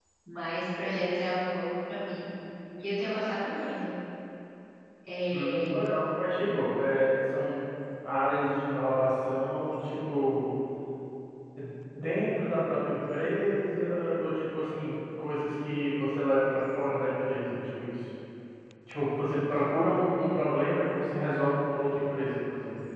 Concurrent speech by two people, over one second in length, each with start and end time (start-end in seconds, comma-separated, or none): none